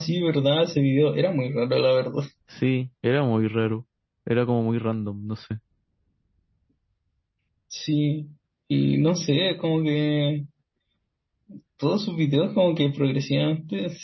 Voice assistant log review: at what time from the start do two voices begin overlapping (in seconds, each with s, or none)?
none